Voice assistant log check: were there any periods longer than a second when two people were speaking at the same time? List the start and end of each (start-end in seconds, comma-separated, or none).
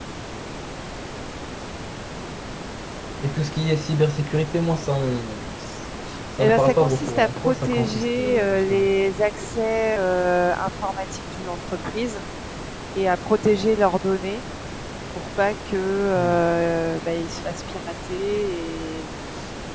6.4-8.9